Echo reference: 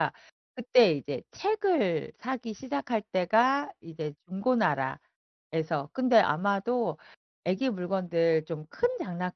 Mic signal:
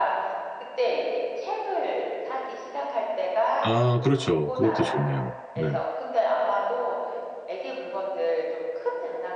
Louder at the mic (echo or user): user